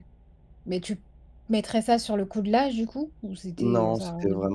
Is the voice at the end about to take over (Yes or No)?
Yes